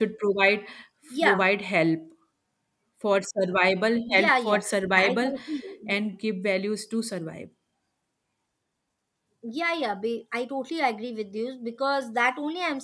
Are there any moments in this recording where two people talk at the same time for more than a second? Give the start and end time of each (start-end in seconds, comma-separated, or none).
4.1-5.3